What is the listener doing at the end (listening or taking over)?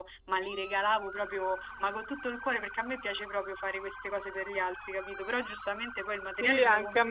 taking over